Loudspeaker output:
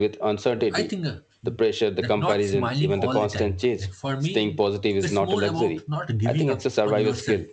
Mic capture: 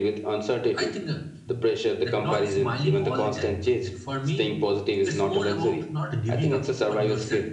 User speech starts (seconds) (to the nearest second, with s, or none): none